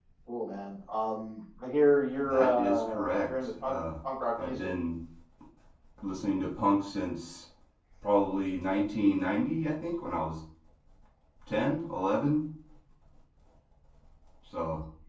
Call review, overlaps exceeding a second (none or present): present